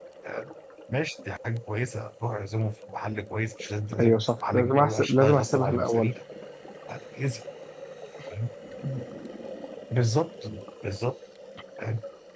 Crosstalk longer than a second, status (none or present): present